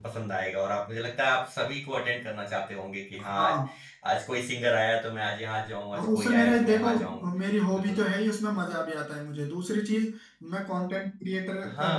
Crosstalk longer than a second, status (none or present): present